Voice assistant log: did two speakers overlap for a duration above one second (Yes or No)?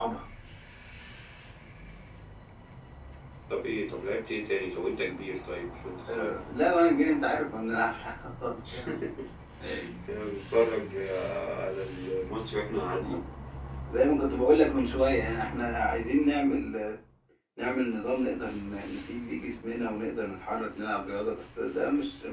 No